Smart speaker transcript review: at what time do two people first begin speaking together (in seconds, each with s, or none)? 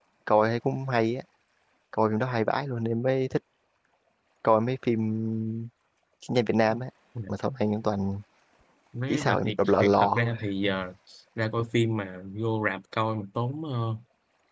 9.1 s